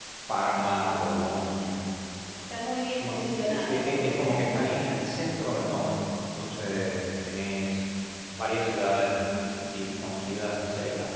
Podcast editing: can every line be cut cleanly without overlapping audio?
No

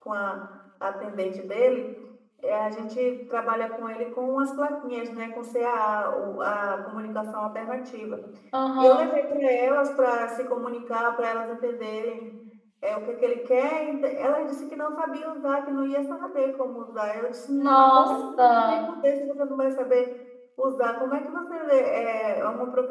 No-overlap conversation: No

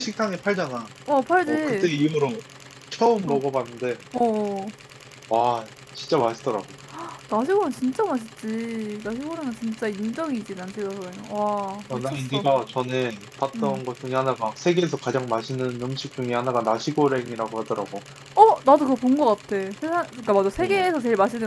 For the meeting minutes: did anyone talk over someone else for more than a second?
No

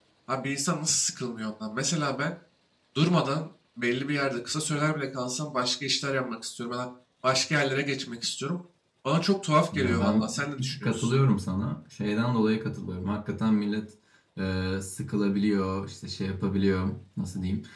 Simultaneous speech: Yes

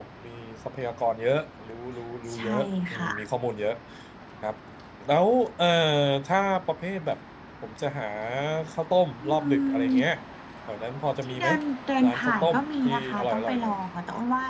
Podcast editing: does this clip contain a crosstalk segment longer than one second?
Yes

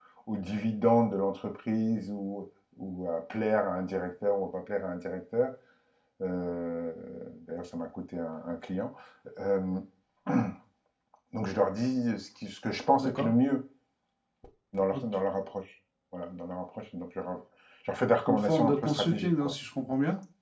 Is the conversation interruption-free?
No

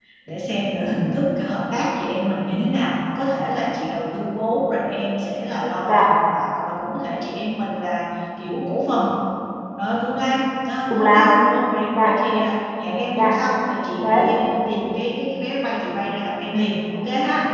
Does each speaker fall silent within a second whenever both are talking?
Yes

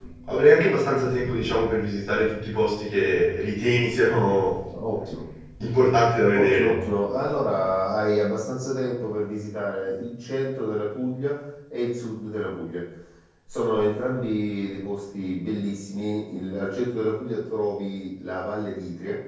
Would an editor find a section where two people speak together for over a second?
No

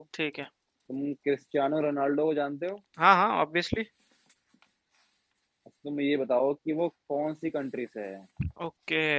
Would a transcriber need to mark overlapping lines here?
No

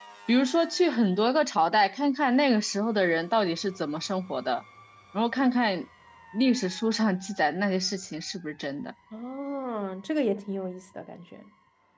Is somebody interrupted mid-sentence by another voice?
No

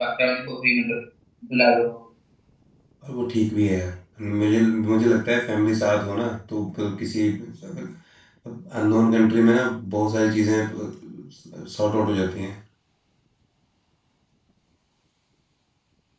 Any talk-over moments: No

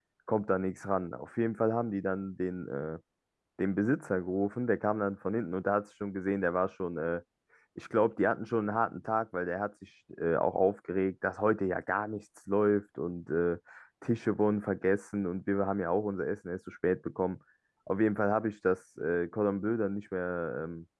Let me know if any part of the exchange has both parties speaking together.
No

